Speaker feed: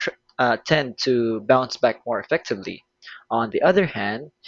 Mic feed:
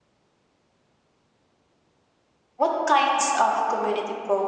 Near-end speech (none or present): present